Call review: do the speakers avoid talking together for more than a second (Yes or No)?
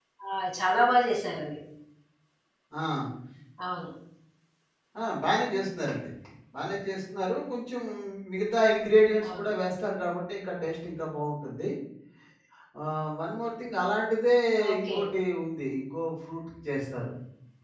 Yes